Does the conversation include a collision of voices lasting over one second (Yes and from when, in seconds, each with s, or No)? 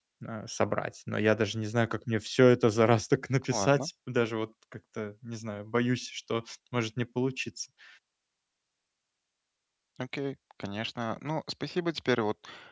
No